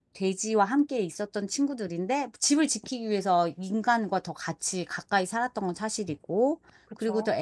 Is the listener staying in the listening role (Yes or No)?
Yes